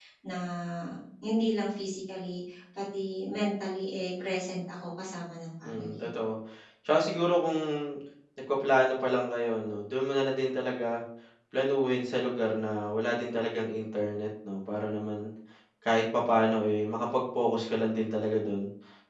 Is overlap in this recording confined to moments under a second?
Yes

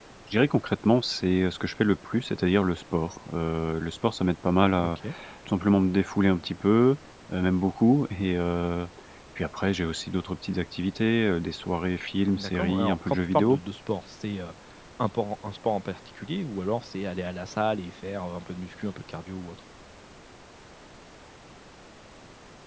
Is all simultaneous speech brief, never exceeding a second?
No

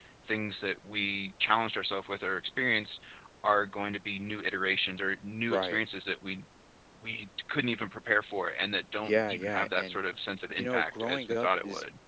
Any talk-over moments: Yes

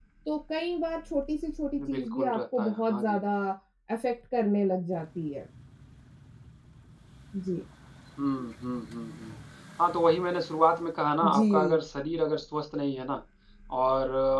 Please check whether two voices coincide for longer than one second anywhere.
Yes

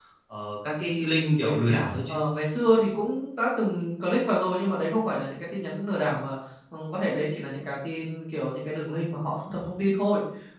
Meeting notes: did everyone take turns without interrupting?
No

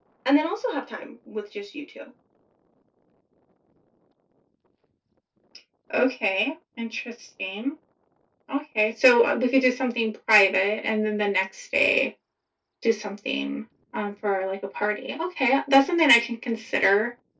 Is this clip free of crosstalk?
Yes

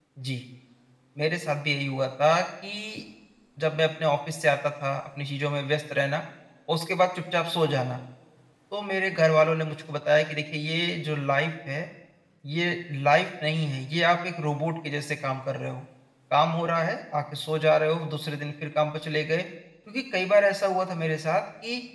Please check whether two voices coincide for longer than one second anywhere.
No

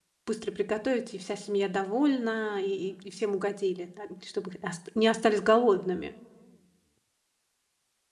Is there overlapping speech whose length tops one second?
No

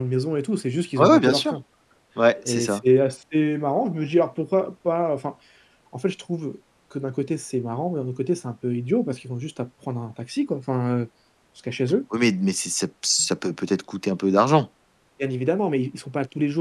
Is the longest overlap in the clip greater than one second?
No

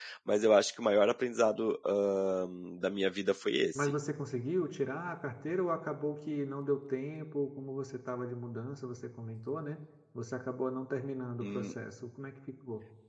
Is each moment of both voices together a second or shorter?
Yes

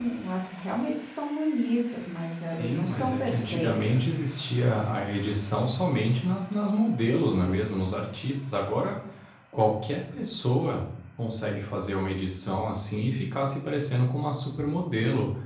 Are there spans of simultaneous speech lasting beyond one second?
Yes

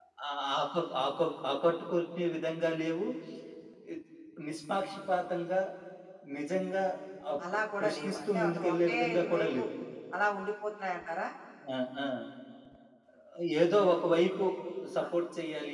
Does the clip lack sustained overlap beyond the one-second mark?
No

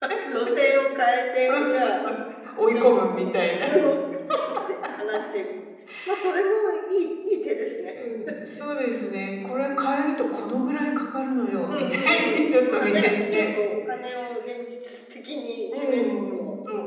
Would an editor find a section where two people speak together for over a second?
Yes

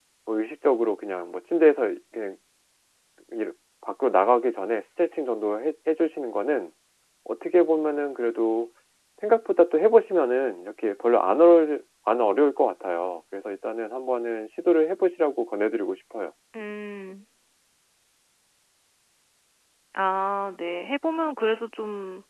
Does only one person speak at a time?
Yes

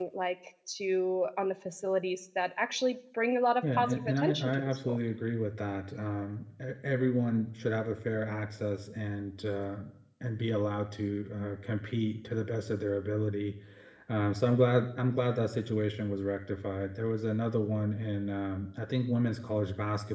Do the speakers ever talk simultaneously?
Yes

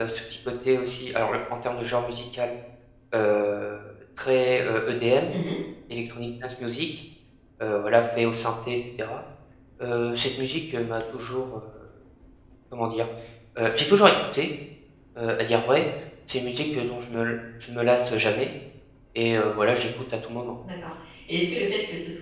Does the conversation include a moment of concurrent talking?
No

